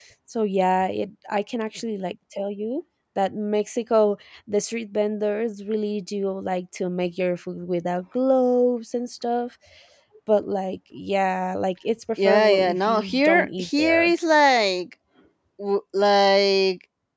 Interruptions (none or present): present